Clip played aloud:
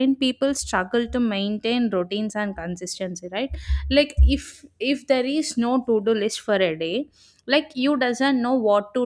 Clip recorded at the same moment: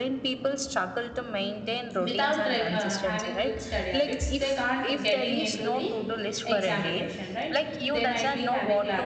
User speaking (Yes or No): Yes